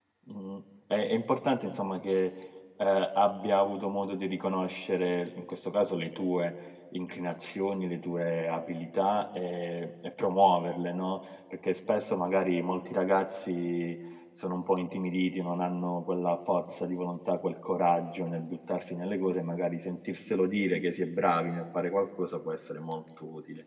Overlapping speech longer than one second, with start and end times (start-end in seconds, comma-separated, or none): none